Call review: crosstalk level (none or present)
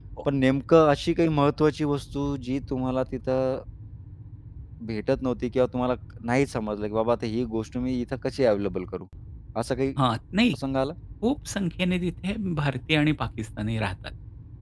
none